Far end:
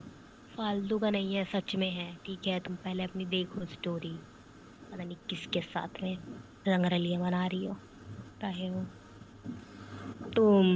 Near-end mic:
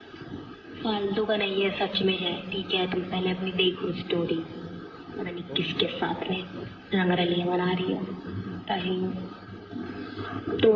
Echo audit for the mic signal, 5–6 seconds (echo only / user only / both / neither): both